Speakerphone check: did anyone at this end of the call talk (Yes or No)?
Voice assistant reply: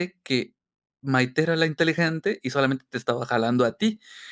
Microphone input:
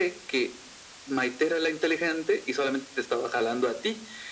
No